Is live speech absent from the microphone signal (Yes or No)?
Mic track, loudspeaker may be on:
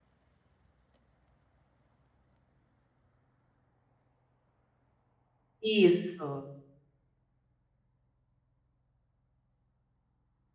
No